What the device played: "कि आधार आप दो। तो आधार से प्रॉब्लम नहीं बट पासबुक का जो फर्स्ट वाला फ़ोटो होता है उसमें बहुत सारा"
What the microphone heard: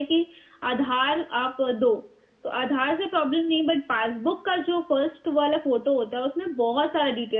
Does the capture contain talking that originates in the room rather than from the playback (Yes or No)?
No